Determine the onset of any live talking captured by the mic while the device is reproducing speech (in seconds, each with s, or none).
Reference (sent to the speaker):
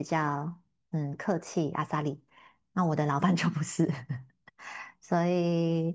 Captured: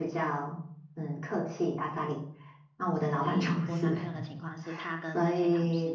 3.1 s